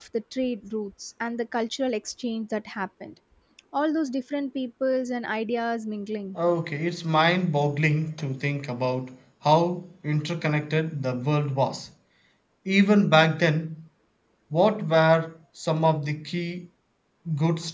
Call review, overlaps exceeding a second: none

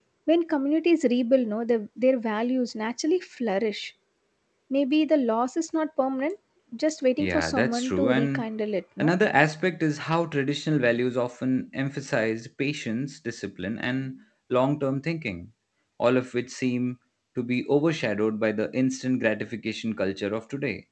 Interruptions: present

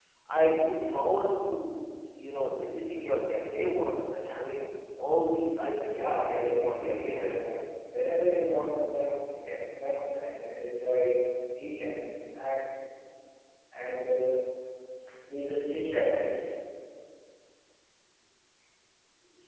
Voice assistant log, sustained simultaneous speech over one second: present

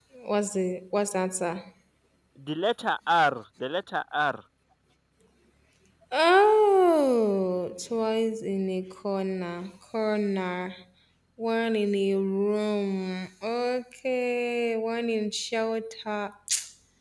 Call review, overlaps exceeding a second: none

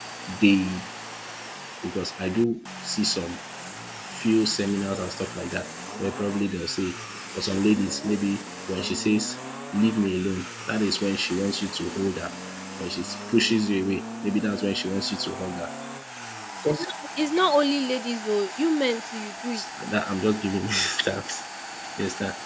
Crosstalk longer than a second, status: none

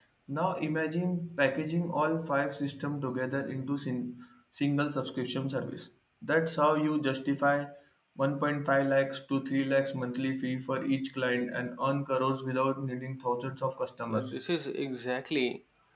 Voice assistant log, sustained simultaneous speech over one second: none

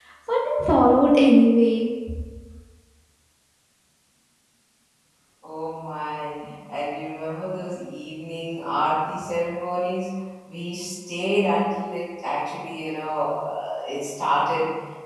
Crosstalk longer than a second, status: none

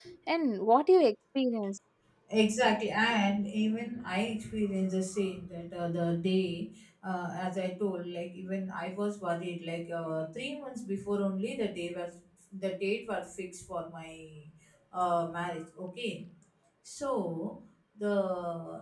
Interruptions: none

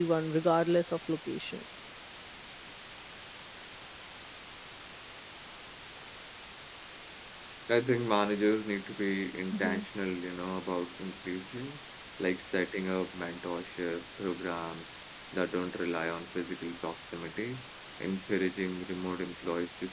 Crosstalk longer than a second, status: none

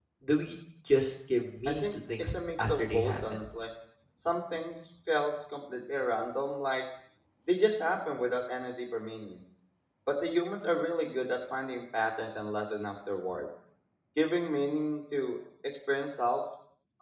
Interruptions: present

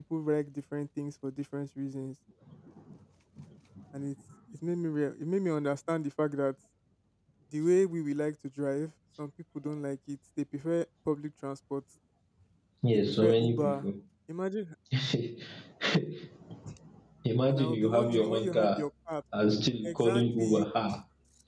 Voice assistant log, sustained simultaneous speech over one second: present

